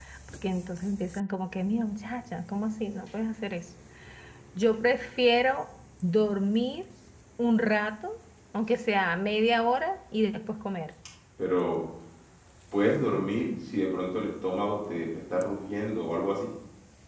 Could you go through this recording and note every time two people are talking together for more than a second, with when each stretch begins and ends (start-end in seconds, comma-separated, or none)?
none